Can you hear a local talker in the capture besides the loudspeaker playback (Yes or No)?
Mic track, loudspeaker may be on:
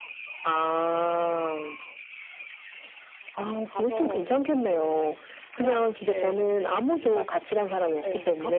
Yes